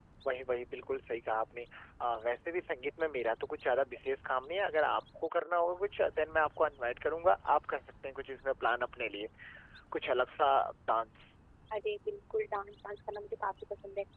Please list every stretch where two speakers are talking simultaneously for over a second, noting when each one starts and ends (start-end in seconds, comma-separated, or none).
none